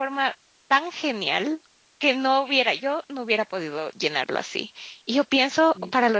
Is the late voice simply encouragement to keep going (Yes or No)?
Yes